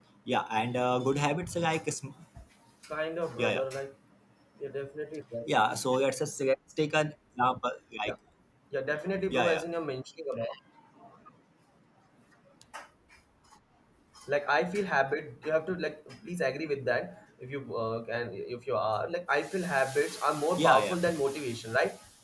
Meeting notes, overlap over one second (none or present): none